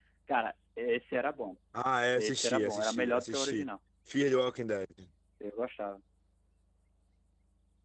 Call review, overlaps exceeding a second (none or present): present